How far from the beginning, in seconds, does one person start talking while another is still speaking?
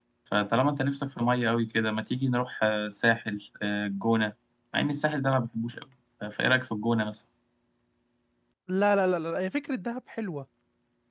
none

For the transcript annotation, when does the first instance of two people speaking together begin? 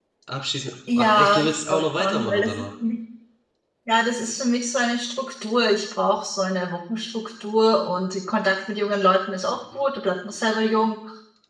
1 s

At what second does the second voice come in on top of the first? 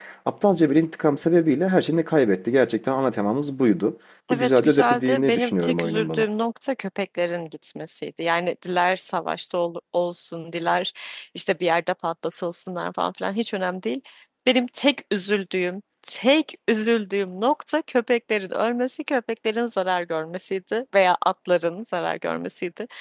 4 s

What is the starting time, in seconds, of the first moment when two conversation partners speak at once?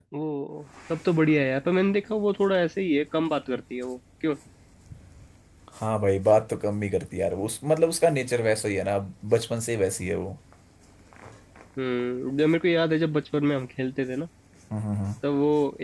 none

